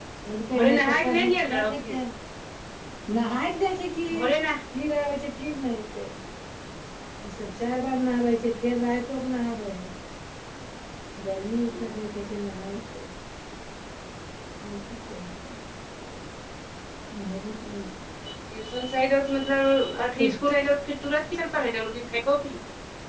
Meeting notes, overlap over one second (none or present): present